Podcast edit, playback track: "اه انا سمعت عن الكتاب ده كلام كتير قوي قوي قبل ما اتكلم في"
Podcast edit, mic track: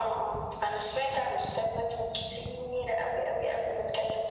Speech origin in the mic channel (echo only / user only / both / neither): echo only